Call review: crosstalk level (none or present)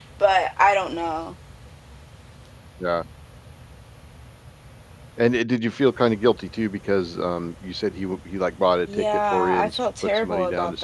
present